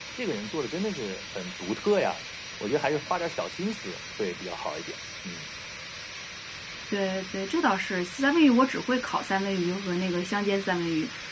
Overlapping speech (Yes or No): No